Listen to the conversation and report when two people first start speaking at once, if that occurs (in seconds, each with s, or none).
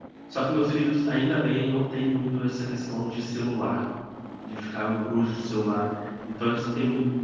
none